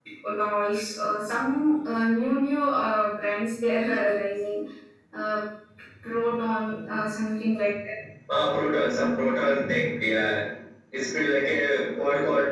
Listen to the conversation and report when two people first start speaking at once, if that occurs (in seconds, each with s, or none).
none